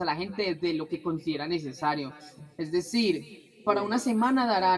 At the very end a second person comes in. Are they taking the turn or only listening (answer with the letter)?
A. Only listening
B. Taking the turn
A